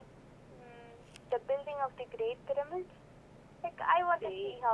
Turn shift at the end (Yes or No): Yes